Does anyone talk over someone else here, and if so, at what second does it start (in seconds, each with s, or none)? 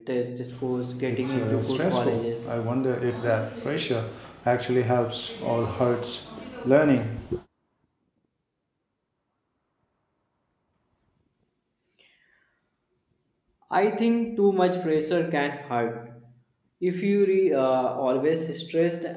1.1 s